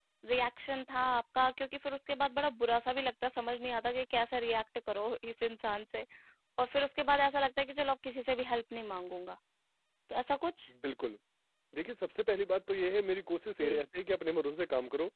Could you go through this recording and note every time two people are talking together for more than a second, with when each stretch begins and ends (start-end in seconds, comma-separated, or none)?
none